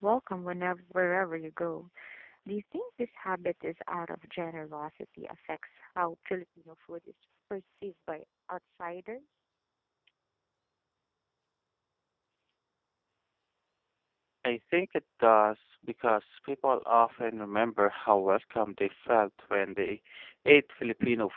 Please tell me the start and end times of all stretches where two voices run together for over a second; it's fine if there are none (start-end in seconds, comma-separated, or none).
none